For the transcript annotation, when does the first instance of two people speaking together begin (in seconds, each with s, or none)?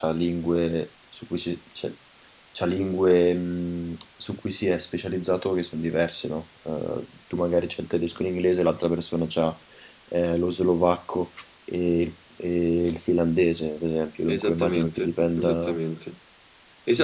14.2 s